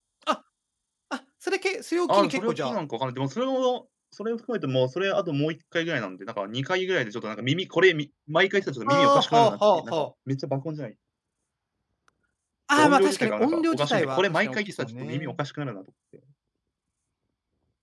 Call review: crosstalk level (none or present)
present